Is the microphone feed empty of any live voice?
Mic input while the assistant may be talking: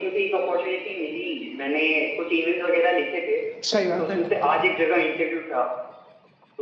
No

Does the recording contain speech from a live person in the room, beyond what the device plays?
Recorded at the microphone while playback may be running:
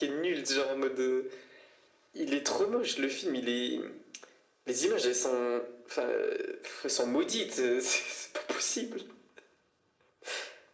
No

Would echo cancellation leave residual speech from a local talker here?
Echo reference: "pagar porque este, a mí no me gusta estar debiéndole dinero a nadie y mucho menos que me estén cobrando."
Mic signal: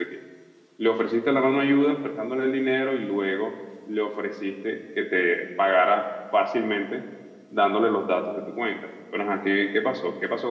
Yes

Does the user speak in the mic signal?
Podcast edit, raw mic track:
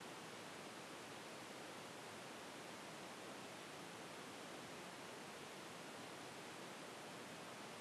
No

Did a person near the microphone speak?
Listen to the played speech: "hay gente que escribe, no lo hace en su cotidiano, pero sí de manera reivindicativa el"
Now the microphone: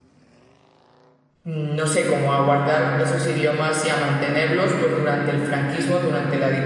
Yes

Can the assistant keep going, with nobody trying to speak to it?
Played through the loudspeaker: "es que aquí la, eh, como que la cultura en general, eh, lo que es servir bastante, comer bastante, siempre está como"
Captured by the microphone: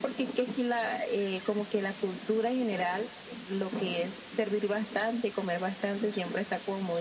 Yes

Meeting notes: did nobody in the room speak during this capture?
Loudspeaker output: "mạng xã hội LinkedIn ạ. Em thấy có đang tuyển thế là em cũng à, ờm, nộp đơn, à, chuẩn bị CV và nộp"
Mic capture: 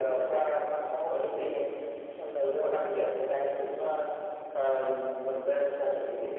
Yes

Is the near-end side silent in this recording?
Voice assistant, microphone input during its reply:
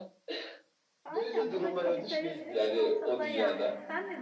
No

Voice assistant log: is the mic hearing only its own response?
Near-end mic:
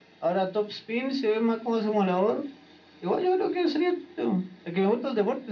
Yes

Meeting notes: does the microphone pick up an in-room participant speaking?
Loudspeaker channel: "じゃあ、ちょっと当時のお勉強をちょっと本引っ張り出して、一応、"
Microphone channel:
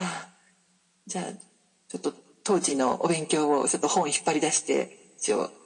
No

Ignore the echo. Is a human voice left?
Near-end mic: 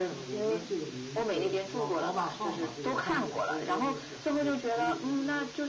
Yes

